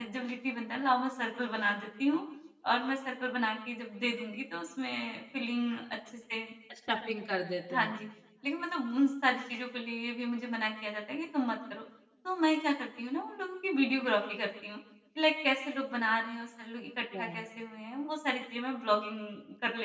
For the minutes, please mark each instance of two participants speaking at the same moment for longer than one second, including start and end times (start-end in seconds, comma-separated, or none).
none